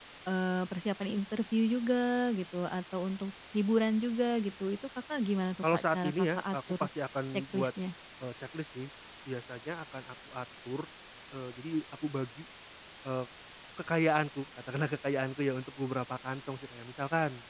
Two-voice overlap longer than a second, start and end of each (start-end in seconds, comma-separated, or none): 5.6-6.8